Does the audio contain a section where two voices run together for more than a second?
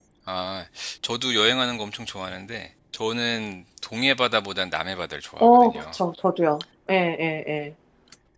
No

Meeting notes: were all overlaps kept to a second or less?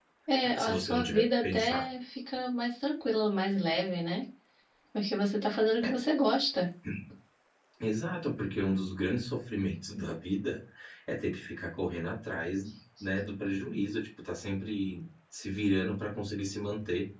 No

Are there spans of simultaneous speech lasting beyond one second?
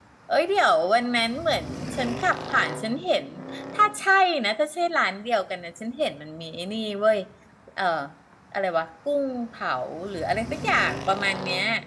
No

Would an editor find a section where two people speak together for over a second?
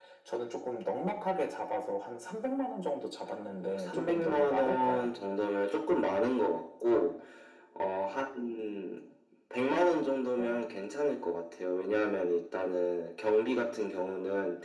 Yes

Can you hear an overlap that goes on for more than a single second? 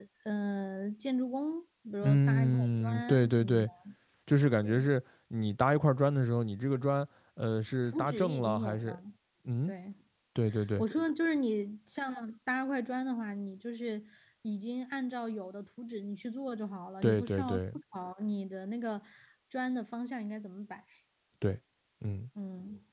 Yes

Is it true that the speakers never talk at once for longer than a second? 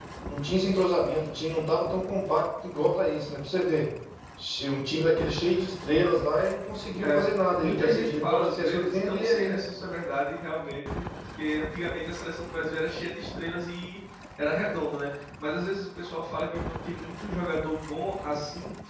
No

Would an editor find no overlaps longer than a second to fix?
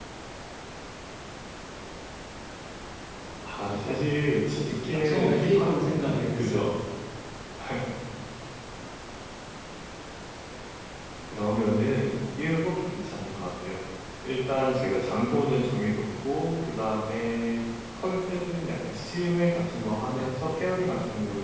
No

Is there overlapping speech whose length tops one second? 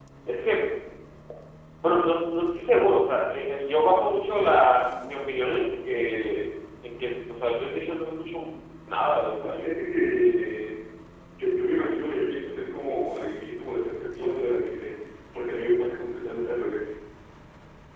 No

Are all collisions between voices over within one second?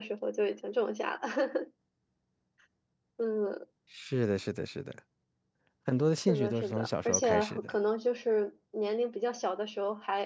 No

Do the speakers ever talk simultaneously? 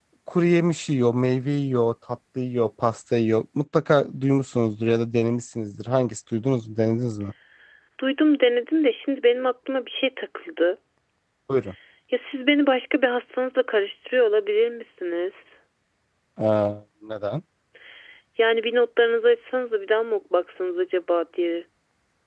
No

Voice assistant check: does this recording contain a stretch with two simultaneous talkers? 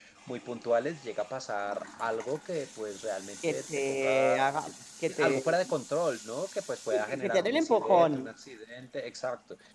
Yes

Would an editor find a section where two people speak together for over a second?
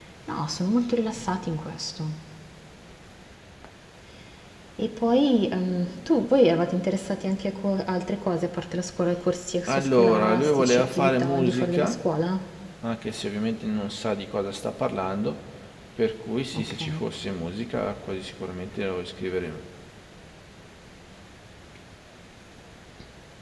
Yes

